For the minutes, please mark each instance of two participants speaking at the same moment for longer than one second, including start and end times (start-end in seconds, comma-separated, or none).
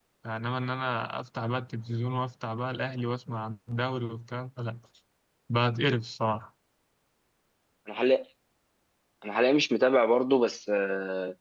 none